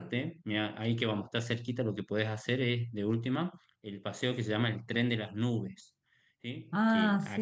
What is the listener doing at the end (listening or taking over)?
listening